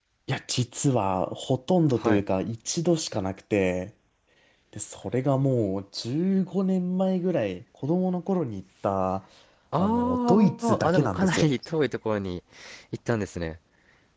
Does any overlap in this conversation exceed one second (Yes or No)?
Yes